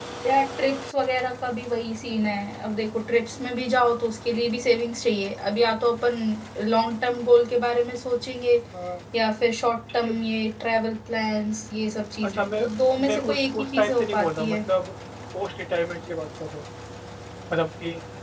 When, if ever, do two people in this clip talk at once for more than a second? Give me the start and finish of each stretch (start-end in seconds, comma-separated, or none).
13.1-14.6